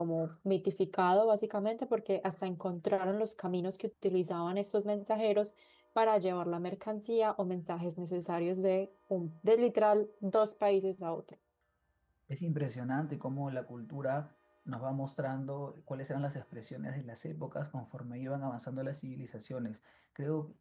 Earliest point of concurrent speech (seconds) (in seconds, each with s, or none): none